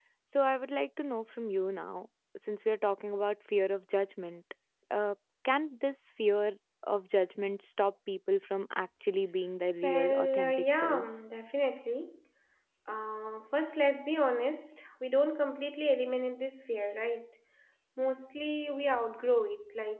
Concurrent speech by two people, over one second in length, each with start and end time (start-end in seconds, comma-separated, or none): 9.8-11.1